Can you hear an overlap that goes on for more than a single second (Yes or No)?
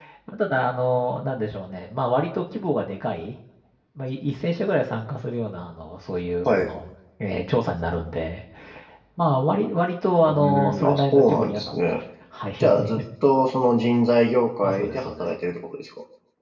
Yes